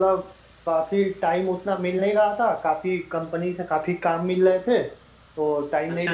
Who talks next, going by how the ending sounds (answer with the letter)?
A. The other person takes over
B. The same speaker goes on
B